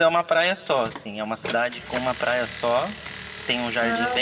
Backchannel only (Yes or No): Yes